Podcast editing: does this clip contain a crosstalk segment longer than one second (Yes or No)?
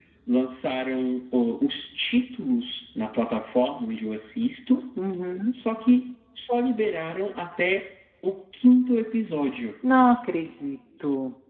No